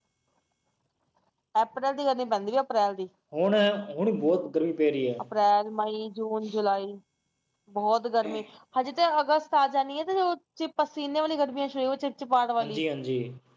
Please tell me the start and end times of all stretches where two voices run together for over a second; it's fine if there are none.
none

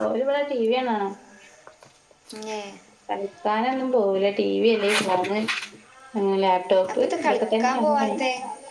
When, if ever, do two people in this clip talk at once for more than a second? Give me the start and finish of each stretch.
6.9-8.2

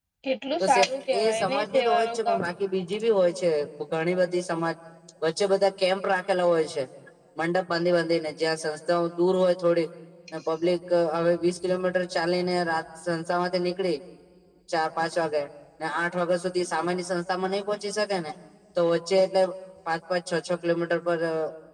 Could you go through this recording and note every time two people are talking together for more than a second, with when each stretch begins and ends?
1.2-2.4

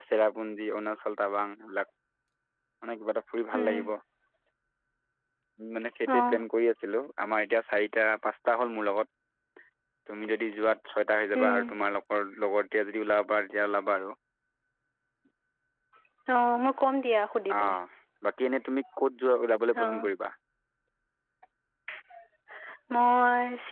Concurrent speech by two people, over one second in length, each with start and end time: none

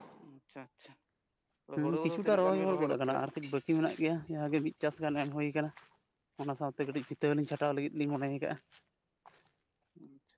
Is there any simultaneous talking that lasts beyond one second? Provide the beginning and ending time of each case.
1.8-3.2

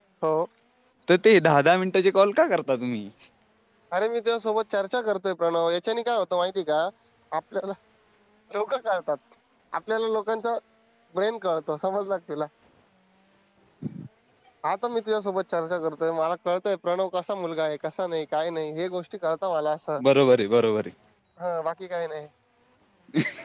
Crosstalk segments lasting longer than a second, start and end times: none

